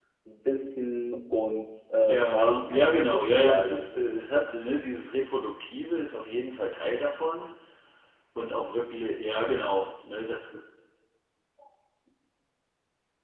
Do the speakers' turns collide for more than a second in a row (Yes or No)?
Yes